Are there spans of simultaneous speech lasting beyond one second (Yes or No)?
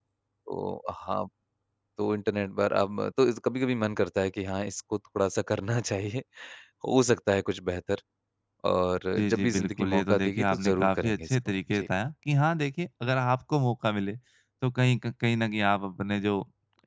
Yes